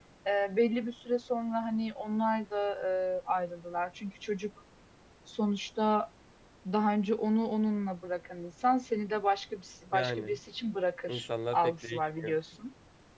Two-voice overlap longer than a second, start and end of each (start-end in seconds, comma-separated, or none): 11.1-12.4